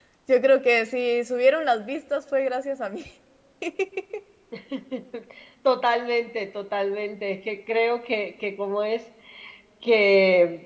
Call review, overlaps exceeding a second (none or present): none